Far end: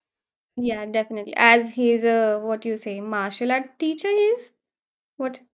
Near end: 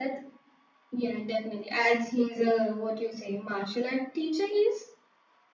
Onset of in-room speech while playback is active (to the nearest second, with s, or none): none